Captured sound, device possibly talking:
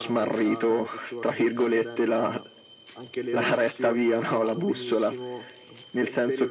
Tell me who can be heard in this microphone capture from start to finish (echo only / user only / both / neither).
both